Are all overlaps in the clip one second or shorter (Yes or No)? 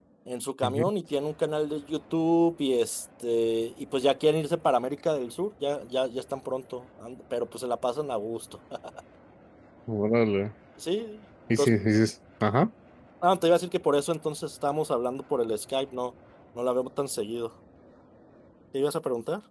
Yes